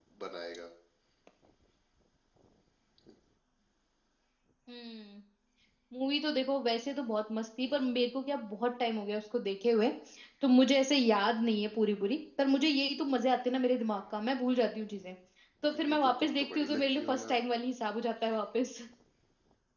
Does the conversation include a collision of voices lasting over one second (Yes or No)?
Yes